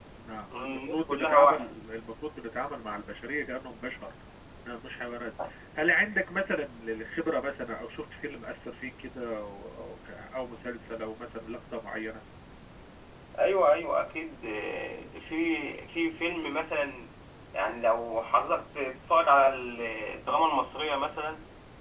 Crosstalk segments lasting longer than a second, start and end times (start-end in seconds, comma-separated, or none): 0.6-1.8